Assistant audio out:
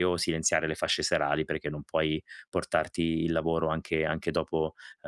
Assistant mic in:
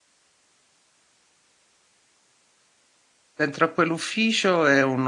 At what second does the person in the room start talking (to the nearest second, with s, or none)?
3 s